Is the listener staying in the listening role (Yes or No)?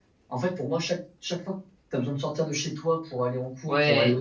Yes